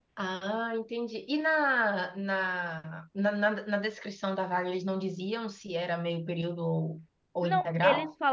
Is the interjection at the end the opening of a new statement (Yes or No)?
Yes